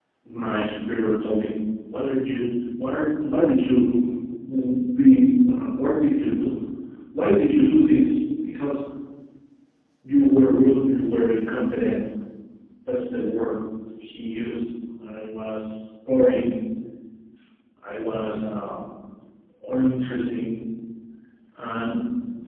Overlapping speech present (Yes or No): No